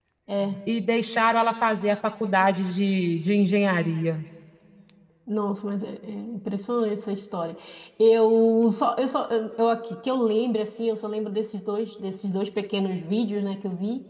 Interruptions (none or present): none